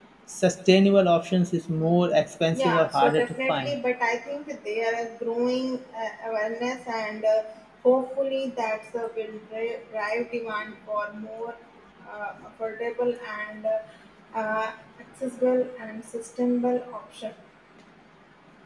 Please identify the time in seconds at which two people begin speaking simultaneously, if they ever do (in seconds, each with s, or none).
2.5 s